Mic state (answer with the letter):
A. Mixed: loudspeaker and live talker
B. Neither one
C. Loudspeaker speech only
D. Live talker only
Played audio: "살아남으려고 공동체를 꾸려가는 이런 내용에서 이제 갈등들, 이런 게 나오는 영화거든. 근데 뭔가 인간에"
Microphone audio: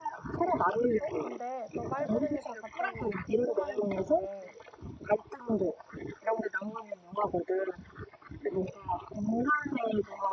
A